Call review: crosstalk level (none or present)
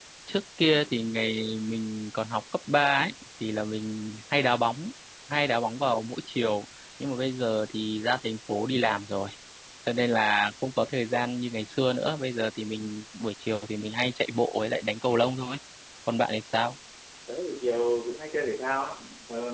none